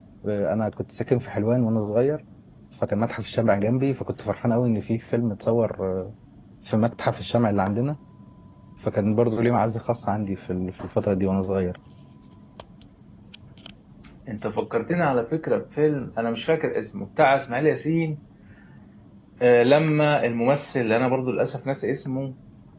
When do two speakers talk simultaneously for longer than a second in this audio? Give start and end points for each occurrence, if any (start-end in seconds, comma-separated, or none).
none